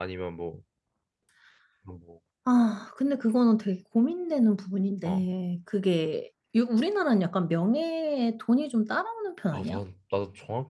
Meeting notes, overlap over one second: none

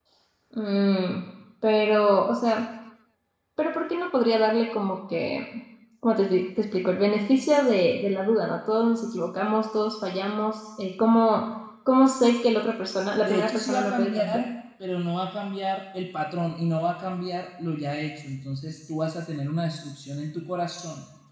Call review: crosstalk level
present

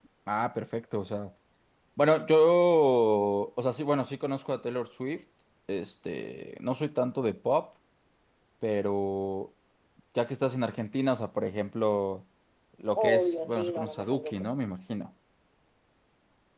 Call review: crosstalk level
present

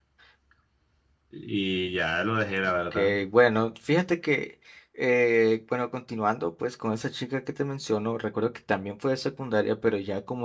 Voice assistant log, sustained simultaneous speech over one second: none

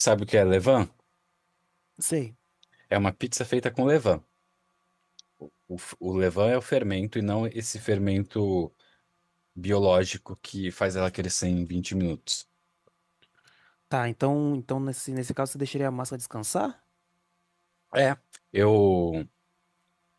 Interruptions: none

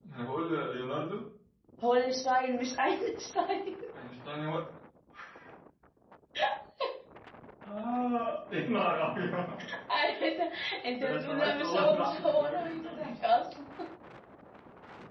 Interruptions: present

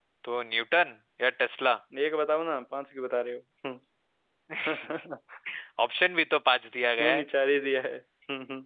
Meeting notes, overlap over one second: none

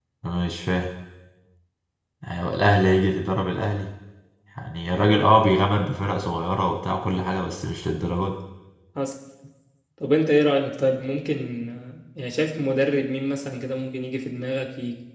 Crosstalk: none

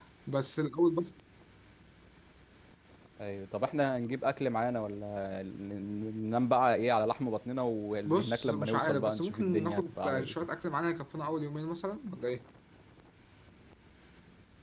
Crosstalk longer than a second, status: present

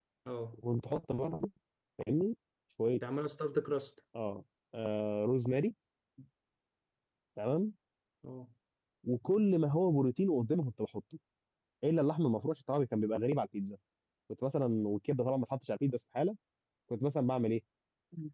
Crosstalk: none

